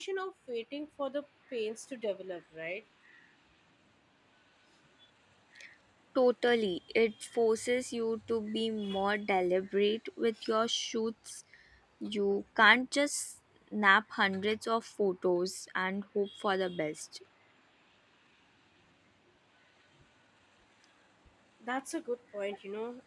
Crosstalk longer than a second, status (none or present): none